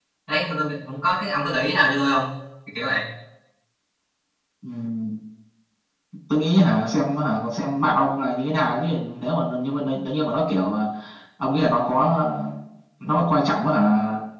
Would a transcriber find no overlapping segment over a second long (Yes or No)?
Yes